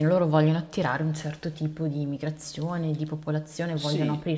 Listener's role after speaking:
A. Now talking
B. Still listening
A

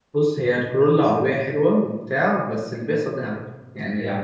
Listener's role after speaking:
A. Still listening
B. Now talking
B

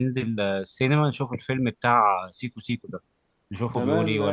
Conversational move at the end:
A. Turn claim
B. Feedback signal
A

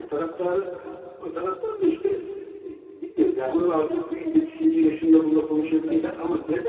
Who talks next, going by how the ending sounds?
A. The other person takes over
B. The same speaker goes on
B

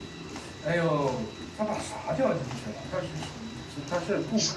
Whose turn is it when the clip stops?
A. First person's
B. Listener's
B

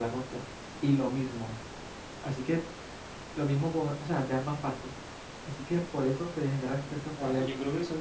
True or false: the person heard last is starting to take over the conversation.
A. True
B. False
A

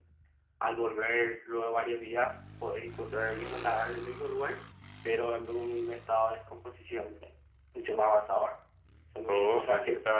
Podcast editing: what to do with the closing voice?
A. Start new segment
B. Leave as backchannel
A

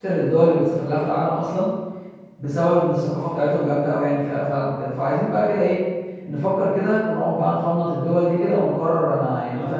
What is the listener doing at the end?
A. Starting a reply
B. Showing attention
A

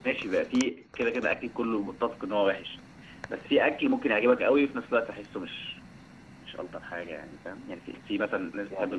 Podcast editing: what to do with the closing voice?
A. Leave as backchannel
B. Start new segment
A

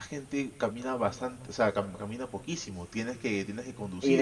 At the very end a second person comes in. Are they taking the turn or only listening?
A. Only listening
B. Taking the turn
B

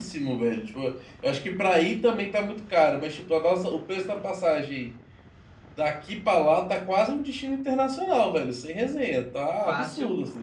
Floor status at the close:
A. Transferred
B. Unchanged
A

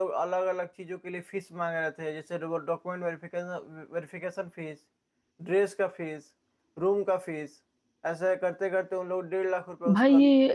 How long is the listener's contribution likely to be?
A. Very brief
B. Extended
B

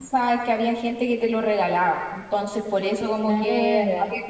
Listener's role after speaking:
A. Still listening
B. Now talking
A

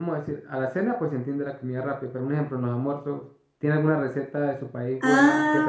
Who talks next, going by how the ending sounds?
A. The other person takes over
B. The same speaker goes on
A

